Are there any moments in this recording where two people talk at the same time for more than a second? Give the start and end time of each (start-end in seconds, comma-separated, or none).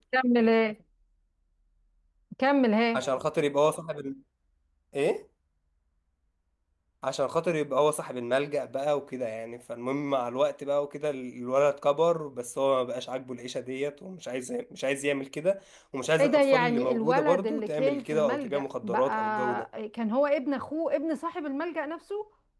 16.2-19.6